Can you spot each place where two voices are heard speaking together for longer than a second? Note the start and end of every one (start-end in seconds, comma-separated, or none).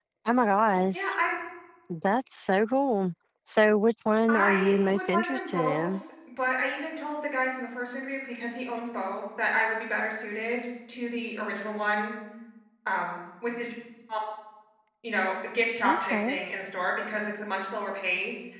4.3-5.9